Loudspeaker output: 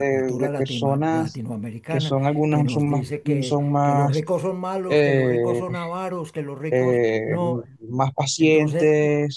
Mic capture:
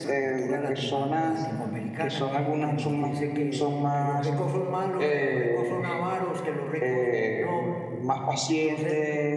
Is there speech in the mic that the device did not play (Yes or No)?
No